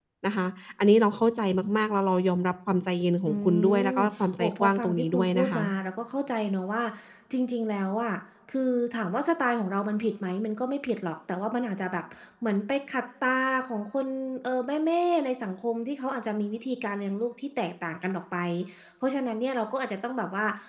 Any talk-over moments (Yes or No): Yes